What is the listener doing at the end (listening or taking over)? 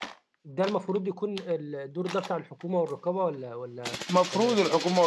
taking over